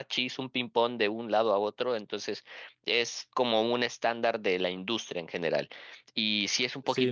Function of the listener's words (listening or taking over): taking over